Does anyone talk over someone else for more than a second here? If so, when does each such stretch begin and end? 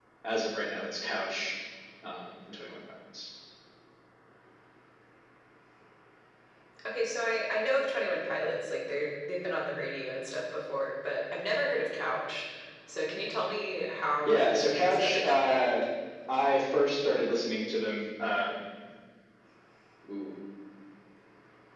14.3-15.8

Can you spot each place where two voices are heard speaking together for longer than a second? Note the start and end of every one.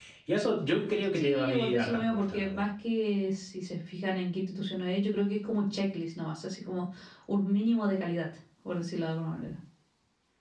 1.1-2.6

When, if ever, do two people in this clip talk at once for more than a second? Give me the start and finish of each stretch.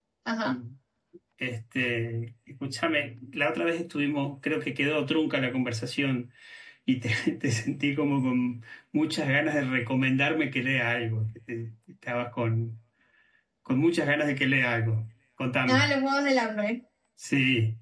none

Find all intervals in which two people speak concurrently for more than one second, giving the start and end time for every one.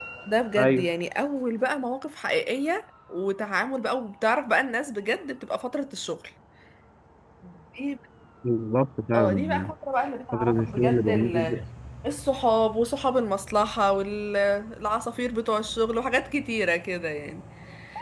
10.3-11.6

